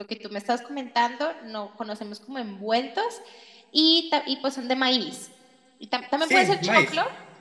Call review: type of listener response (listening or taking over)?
listening